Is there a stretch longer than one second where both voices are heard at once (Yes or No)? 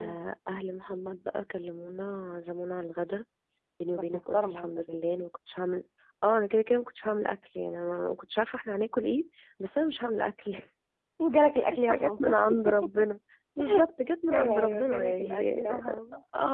Yes